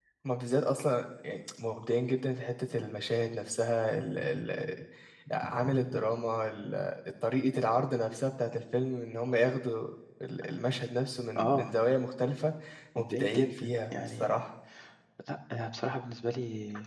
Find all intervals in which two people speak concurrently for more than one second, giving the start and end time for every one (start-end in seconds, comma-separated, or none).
13.0-14.4